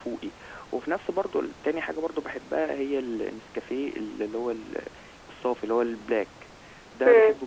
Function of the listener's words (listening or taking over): listening